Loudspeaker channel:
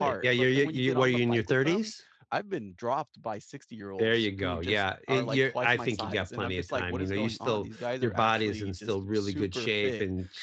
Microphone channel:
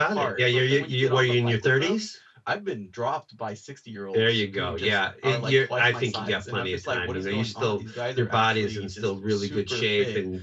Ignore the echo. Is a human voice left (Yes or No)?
No